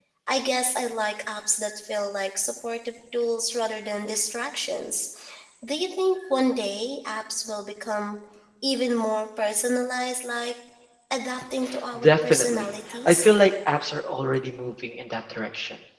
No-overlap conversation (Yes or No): No